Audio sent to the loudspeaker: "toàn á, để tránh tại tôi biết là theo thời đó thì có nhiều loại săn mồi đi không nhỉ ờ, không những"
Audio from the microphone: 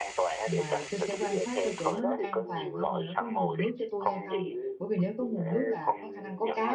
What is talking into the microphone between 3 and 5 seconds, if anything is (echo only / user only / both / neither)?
both